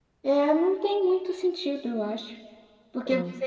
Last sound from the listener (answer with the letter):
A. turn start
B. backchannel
B